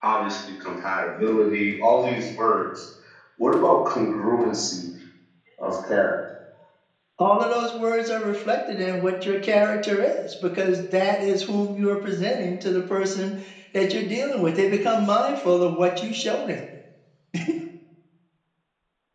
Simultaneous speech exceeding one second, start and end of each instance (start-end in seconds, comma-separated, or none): none